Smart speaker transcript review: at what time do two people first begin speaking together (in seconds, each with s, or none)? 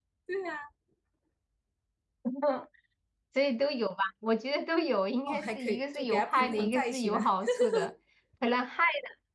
5.3 s